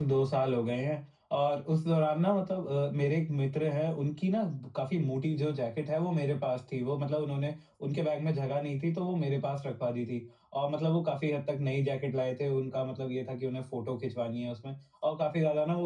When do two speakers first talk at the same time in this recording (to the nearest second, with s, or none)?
none